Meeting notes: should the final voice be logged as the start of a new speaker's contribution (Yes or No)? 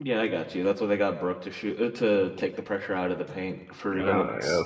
Yes